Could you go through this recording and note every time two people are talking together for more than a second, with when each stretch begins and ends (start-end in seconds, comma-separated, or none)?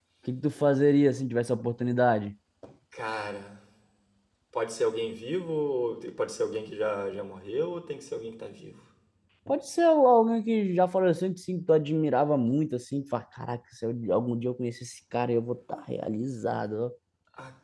none